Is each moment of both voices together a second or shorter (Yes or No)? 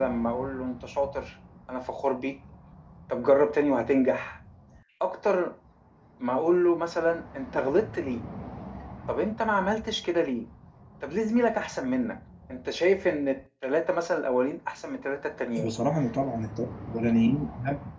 Yes